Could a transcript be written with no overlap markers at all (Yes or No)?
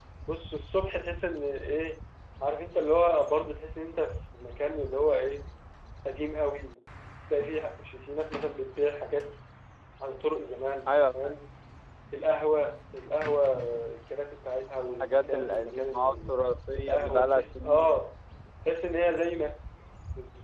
No